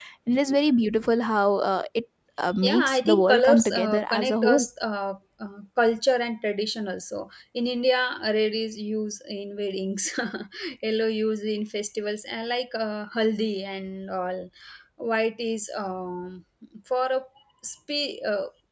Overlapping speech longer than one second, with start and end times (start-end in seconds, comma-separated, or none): 2.6-4.7